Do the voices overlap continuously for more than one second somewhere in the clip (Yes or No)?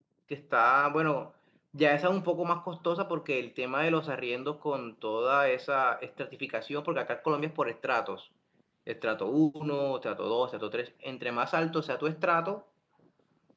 No